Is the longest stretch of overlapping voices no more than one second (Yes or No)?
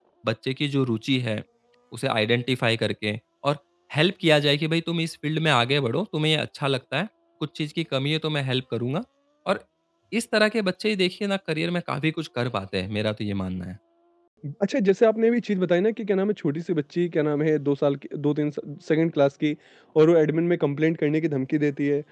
Yes